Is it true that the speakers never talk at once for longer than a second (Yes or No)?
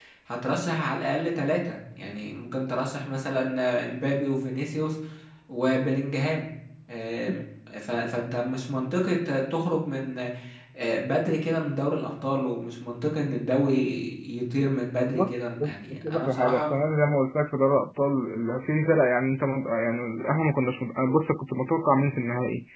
No